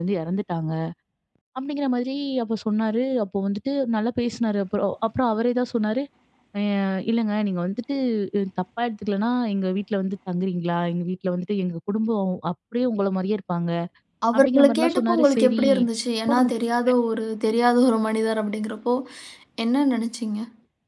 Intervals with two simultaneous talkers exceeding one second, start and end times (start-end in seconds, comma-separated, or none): 14.3-15.6